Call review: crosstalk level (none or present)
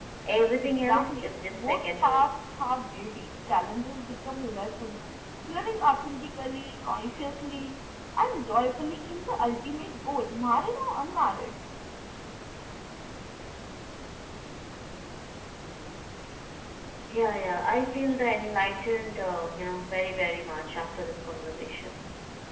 present